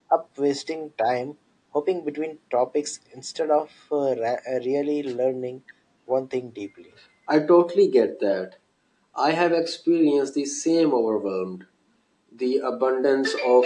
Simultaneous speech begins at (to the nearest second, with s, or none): none